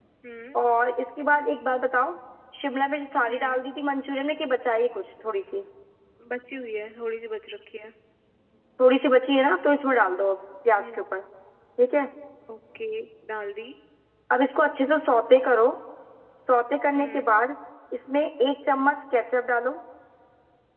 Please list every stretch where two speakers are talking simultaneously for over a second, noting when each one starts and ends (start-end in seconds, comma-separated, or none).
none